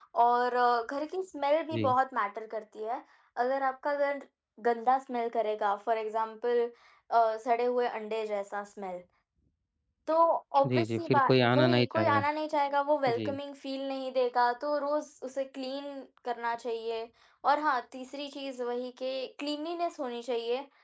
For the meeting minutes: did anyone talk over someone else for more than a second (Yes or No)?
Yes